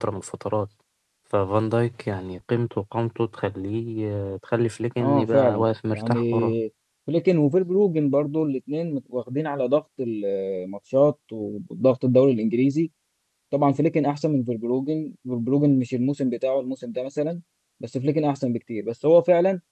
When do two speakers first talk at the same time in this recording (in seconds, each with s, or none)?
5.0 s